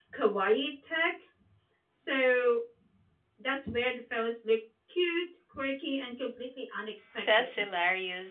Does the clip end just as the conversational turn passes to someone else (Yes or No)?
Yes